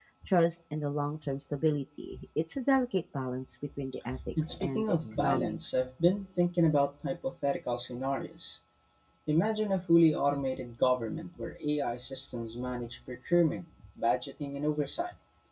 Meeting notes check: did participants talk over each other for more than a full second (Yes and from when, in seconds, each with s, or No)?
Yes, from 4.1 s